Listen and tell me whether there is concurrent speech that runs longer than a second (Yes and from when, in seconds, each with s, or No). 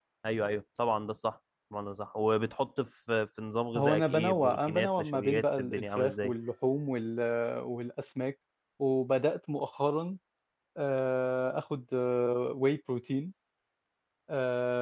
Yes, from 3.7 s